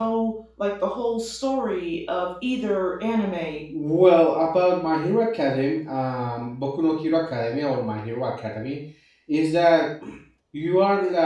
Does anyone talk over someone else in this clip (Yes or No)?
No